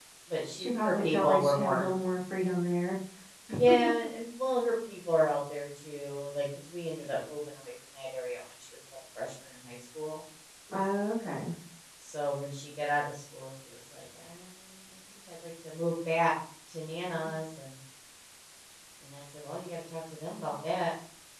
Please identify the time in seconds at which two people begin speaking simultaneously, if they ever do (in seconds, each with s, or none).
0.6 s